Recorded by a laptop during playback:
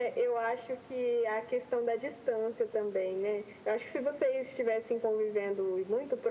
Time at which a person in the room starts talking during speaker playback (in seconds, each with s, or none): none